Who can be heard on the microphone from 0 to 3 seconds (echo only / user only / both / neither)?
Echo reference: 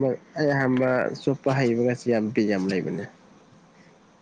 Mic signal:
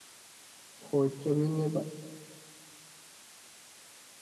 user only